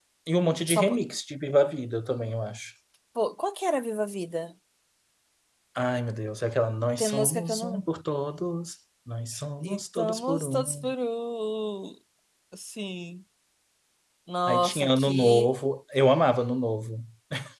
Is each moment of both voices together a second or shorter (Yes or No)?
No